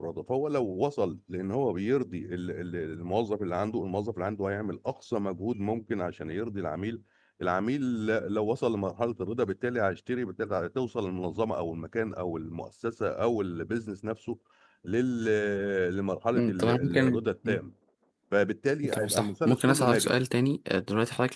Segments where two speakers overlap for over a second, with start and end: 16.3-17.6, 18.9-20.2

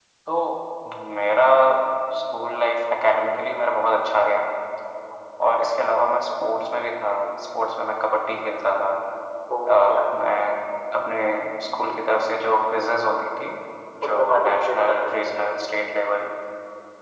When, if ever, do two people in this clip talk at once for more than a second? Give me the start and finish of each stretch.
14.1-15.3

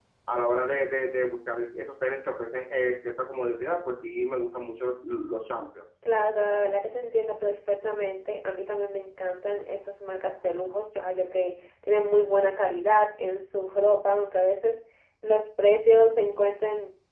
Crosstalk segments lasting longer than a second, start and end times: none

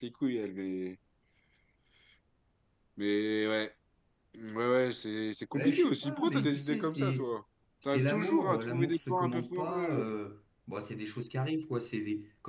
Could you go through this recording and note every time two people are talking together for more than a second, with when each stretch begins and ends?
5.5-7.3, 7.8-10.1

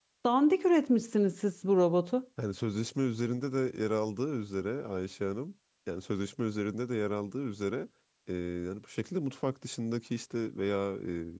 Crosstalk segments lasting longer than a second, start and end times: none

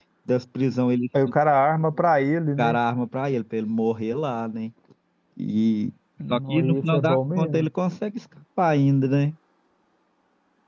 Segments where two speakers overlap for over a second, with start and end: 6.3-7.7

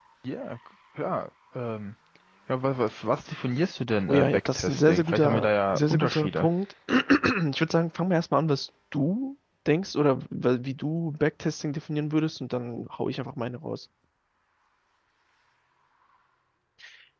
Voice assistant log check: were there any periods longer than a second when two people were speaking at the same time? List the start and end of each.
4.1-6.5

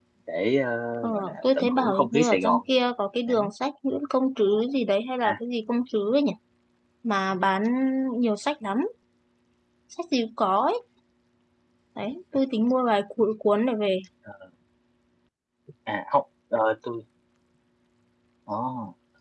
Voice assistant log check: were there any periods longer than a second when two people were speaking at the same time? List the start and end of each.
1.0-2.6

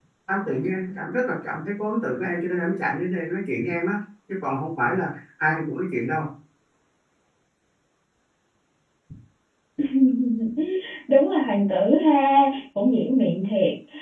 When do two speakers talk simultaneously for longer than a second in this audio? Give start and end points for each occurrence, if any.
none

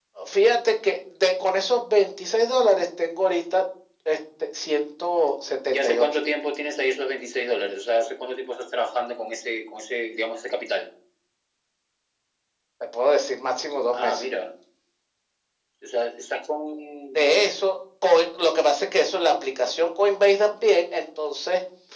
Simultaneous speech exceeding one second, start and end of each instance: none

